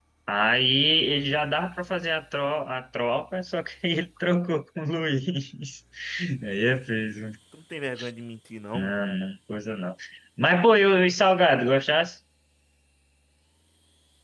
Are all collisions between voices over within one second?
Yes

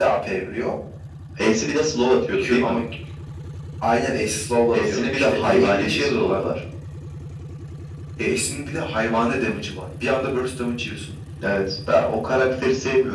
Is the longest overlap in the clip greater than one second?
Yes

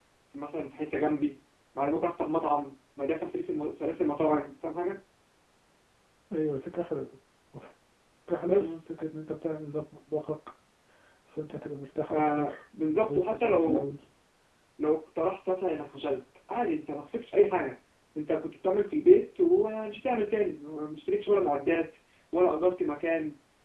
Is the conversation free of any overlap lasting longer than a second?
No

